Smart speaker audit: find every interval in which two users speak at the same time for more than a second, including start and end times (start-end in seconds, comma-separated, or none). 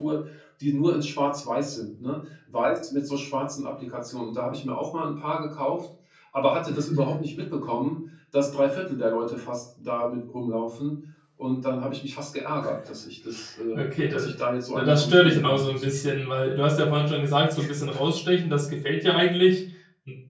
14.8-16.2